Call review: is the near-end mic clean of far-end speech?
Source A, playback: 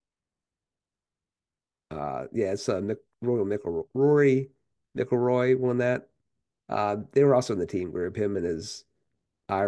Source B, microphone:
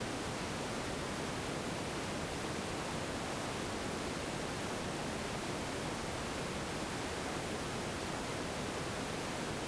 Yes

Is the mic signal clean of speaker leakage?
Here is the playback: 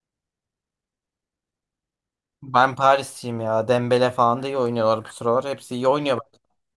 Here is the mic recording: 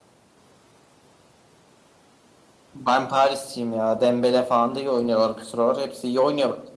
No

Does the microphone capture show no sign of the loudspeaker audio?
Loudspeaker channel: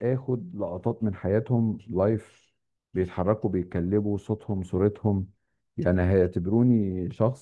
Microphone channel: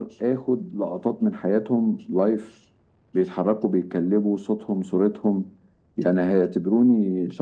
No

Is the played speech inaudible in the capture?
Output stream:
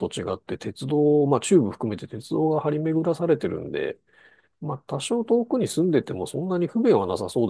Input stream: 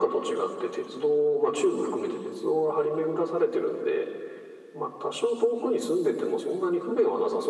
No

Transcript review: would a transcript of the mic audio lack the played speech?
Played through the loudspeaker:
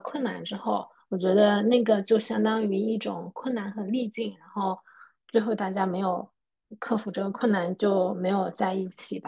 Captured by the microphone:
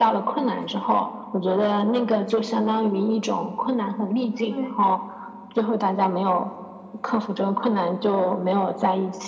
No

